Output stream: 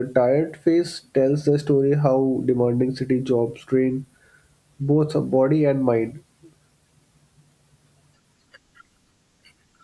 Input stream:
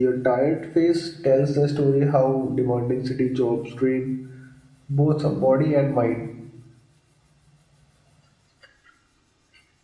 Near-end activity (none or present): none